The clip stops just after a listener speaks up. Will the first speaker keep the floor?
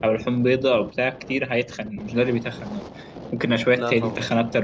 Yes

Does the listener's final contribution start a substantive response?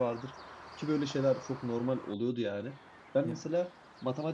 No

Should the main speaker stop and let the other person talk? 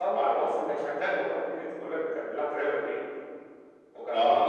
No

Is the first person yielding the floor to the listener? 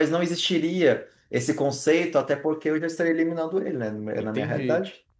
Yes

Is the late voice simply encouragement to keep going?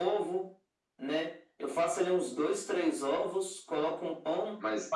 No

